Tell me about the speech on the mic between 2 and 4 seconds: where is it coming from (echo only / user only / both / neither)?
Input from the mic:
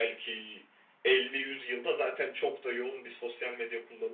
echo only